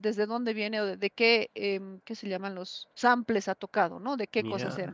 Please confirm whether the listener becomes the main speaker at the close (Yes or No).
No